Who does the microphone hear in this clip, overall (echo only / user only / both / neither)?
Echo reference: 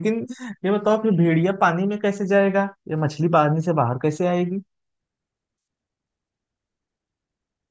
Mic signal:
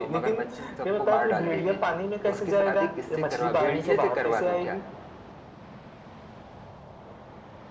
both